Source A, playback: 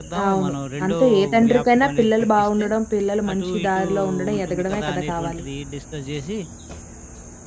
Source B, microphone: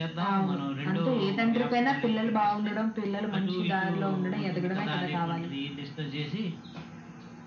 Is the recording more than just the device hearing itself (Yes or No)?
No